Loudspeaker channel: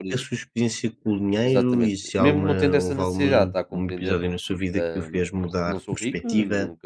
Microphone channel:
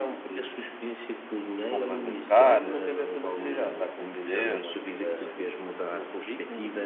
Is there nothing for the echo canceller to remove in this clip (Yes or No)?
No